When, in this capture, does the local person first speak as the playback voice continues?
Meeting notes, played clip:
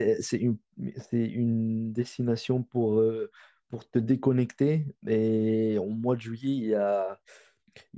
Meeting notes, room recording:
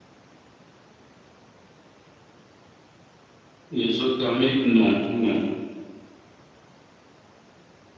3.7 s

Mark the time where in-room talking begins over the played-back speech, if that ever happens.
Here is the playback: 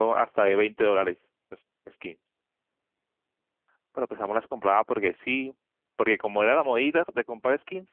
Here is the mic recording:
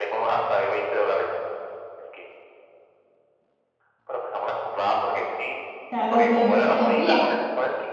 5.9 s

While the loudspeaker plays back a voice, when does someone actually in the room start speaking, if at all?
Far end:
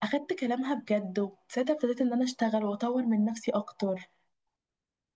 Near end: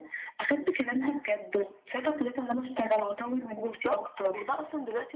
3.6 s

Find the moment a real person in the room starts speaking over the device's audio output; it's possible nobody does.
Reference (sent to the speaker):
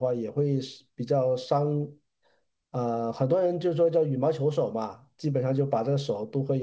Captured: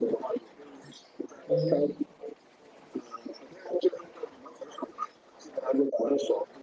1.5 s

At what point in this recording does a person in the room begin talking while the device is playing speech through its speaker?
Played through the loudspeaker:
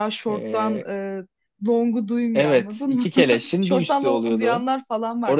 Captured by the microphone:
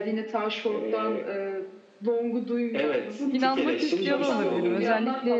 3.3 s

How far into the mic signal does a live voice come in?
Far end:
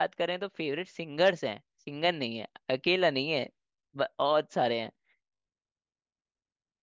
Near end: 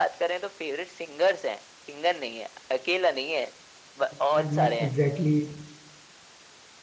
4.1 s

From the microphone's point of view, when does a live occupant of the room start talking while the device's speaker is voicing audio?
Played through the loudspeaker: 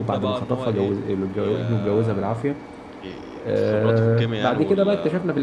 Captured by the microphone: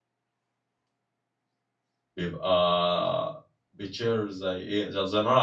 2.2 s

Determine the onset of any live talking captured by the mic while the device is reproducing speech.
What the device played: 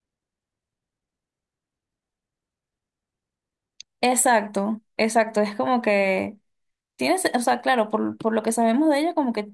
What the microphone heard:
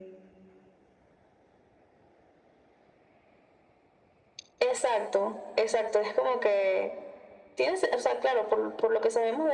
none

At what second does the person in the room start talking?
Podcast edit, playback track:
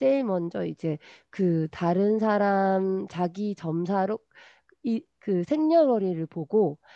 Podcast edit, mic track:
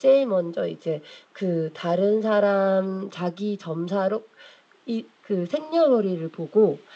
none

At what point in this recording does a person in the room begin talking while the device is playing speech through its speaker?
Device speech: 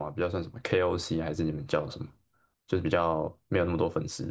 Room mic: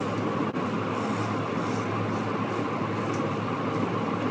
none

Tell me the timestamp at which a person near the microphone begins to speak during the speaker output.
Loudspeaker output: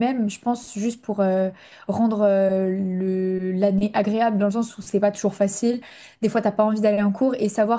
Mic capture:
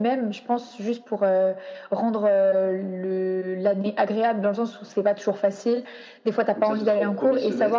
6.5 s

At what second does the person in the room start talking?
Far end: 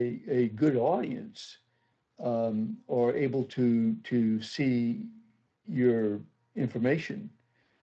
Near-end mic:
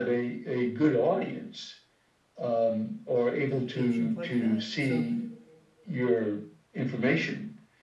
3.5 s

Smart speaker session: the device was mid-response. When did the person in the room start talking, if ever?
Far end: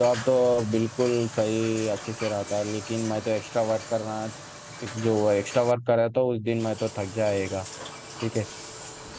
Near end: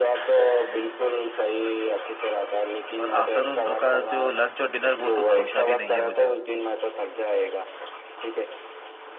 3.0 s

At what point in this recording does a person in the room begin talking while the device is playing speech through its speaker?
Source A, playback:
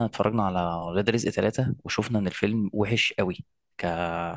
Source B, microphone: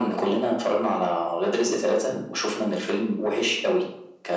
none

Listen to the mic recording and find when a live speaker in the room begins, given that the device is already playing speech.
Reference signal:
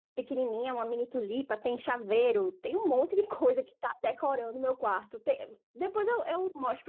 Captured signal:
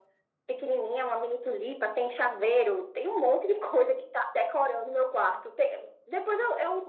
none

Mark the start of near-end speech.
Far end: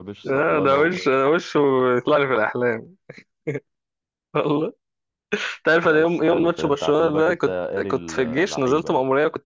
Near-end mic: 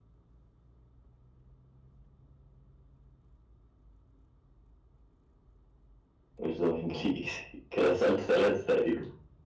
6.4 s

